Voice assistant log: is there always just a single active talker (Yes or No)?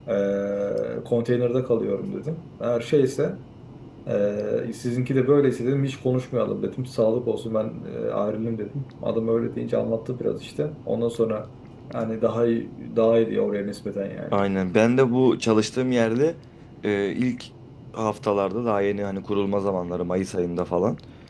Yes